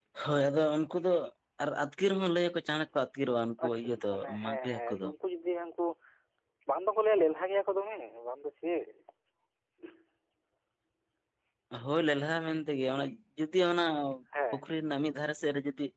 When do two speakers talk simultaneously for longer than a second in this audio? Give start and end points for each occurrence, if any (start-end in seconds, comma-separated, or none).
3.6-5.1